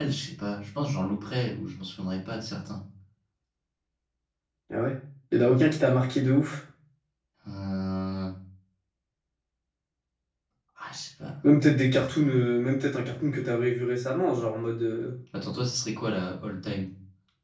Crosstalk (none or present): none